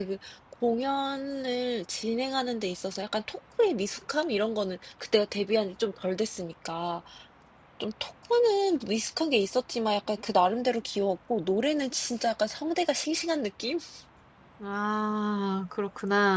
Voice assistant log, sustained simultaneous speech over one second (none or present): none